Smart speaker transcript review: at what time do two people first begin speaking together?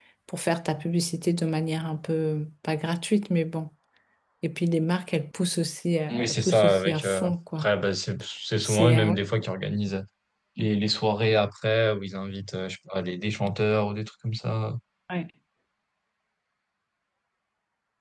6 s

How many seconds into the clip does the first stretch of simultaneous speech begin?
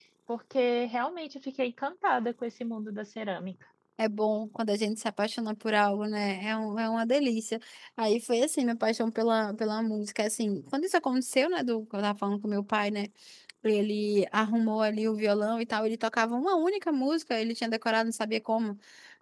none

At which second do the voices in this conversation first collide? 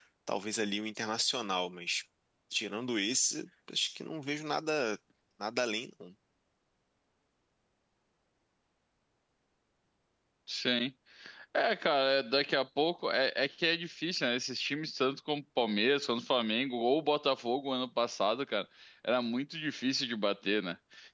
none

